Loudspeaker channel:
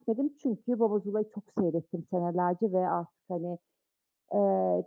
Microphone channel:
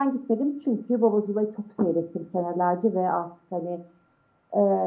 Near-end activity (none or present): none